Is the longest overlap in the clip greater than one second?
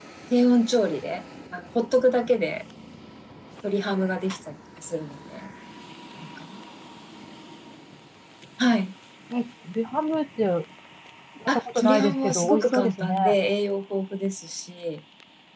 Yes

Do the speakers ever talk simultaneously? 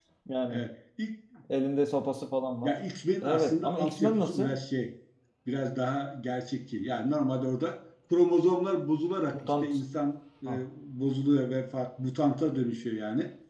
Yes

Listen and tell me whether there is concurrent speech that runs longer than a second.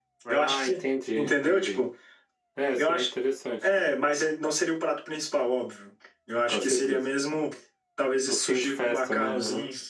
Yes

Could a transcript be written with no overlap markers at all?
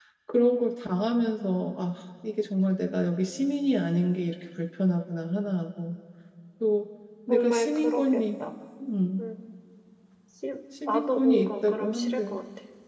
No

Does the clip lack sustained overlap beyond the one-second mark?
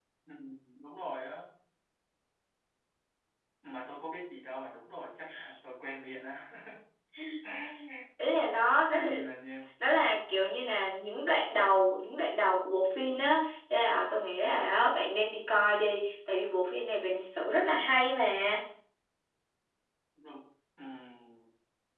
Yes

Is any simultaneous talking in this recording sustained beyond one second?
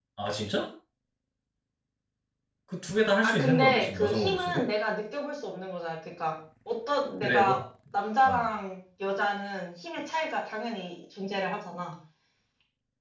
Yes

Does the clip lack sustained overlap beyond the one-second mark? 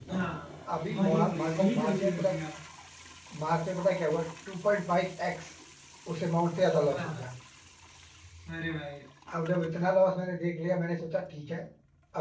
No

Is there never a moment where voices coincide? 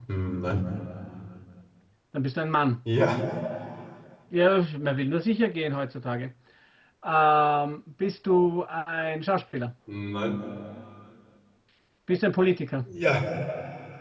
Yes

